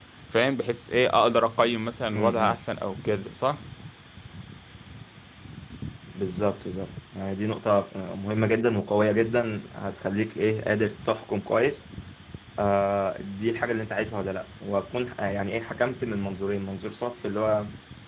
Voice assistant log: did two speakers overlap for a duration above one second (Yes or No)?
No